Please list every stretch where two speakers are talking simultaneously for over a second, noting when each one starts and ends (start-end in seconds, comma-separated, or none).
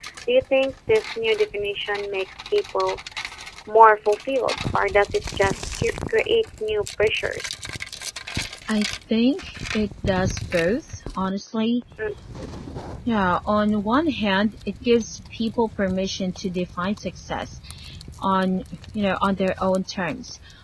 none